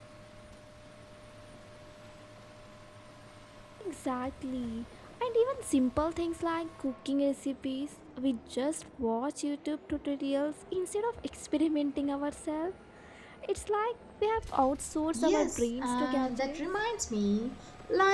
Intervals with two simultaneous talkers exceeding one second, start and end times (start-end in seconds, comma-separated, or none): 15.1-16.6